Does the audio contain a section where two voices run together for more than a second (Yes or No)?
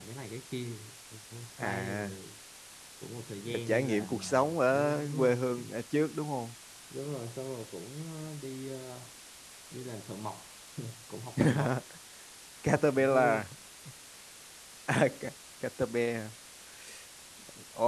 Yes